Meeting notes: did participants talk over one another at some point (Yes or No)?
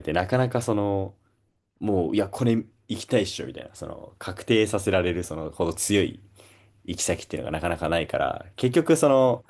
No